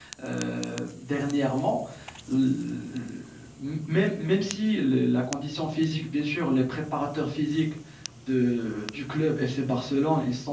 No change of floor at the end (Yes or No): Yes